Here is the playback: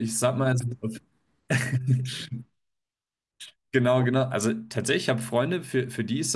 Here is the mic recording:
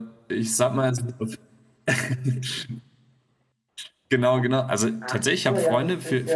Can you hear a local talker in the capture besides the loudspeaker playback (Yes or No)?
Yes